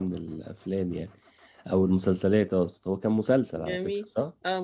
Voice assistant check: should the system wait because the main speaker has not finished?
No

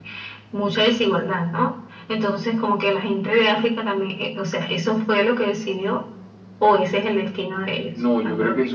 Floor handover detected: Yes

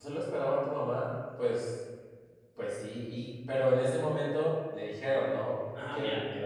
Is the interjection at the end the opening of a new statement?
Yes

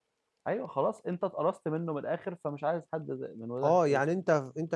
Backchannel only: No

